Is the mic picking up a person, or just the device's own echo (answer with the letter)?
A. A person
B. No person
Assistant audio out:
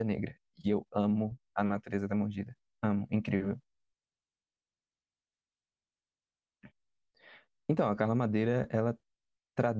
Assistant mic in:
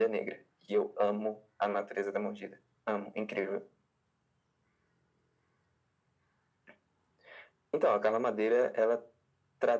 B